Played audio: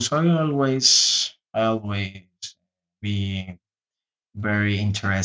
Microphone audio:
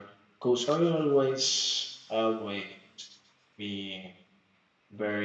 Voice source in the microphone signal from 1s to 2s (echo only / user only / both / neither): echo only